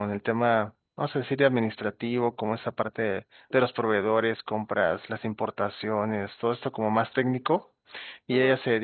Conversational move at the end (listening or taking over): listening